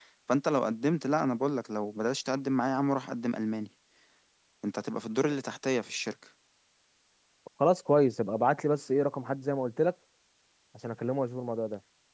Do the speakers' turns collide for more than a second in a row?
No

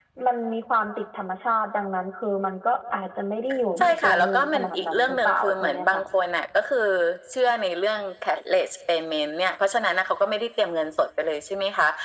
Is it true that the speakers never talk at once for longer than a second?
No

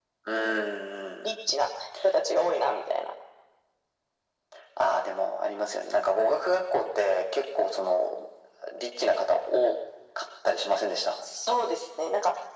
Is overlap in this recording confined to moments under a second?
Yes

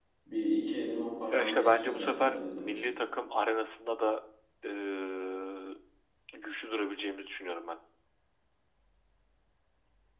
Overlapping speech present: Yes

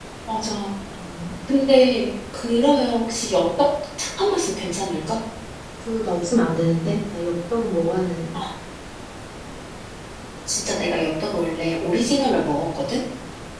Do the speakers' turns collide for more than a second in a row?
No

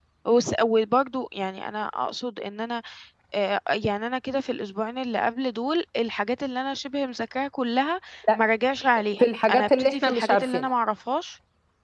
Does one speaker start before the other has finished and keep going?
Yes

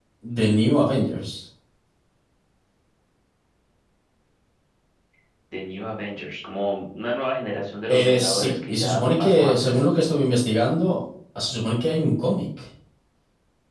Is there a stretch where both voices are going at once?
Yes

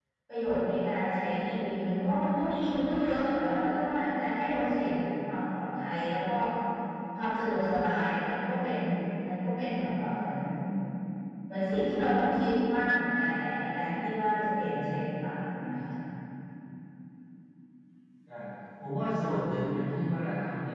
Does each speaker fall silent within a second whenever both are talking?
Yes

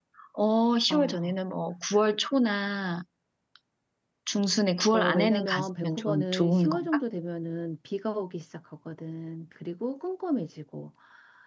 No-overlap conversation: No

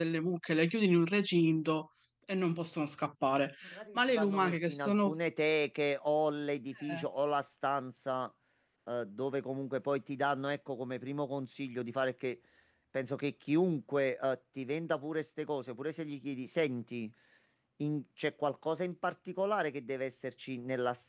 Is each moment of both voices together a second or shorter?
No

